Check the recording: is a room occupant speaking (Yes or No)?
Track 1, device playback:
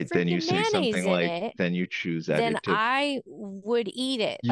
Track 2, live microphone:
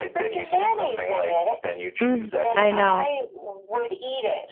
Yes